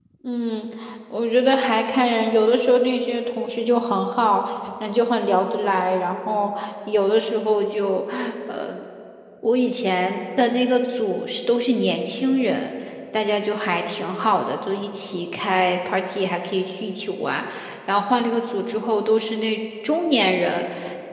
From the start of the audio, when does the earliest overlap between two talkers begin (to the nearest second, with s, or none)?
none